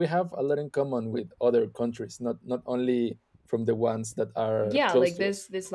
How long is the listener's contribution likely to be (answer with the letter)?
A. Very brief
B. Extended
B